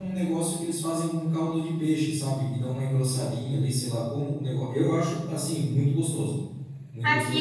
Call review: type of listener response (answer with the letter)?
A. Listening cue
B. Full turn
B